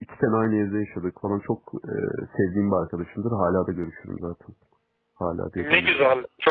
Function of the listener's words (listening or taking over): taking over